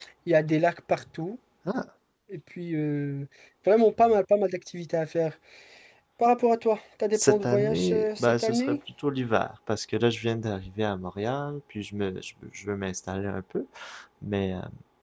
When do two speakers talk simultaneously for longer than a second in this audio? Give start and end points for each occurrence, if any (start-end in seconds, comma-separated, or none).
7.1-8.8